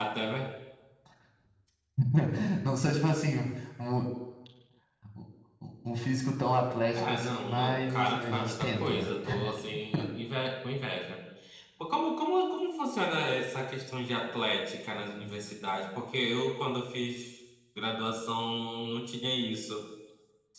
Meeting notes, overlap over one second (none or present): present